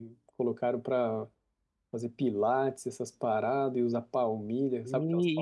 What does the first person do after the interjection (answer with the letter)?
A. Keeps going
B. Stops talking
B